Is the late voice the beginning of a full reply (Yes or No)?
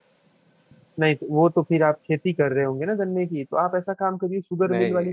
No